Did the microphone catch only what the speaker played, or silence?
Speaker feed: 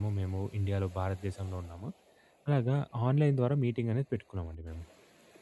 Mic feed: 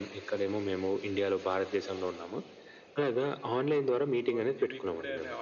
No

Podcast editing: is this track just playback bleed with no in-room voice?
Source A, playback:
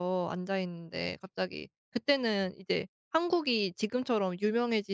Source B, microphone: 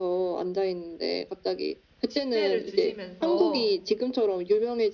No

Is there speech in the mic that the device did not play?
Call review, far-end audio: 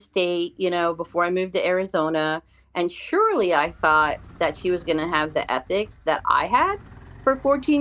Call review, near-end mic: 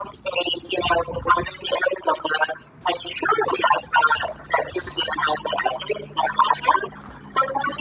No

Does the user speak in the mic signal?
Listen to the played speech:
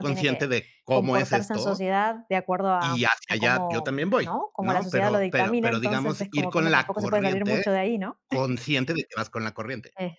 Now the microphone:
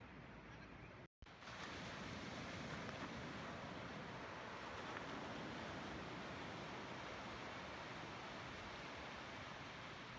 No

